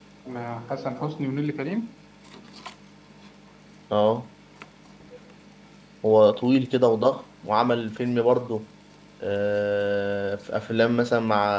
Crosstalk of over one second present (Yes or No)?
No